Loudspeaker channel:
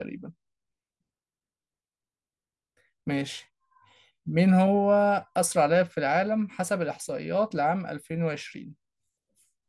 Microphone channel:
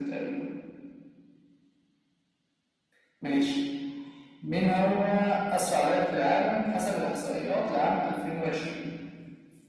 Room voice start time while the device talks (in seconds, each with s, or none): none